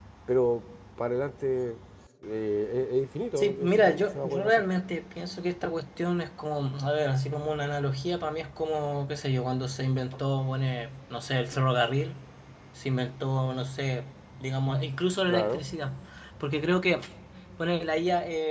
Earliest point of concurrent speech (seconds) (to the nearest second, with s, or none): 3 s